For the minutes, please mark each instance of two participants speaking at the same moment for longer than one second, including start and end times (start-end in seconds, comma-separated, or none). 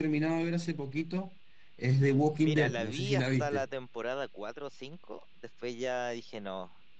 2.4-3.7